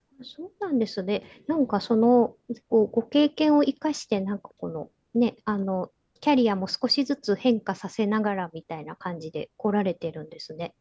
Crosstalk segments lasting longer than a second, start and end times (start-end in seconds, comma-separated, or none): none